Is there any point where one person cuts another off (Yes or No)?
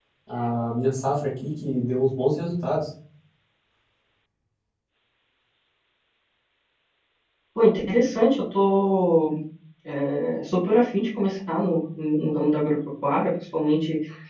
No